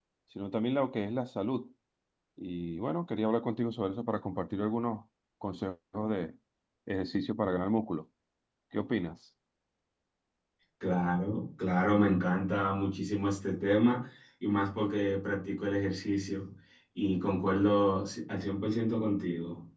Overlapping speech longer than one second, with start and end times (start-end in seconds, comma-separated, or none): none